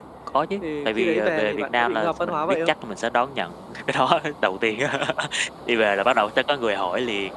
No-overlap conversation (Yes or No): No